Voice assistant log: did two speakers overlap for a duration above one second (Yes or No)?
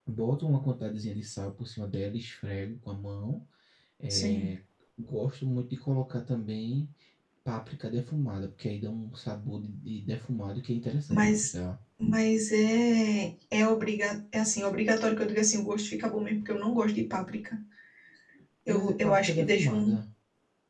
Yes